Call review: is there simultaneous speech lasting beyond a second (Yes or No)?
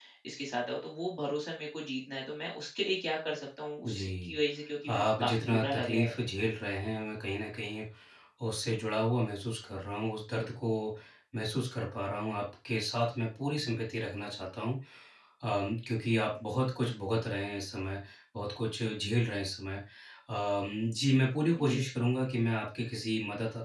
Yes